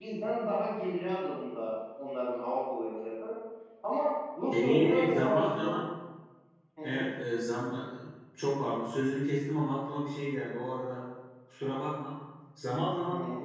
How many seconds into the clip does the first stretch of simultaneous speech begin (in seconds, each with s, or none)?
4.5 s